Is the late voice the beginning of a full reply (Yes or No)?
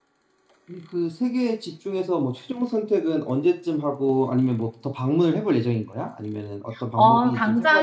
Yes